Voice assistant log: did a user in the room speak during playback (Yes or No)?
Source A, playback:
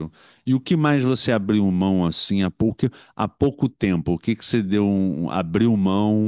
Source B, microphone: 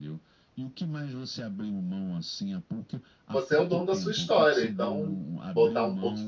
Yes